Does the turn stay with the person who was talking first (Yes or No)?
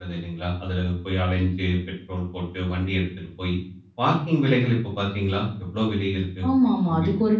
No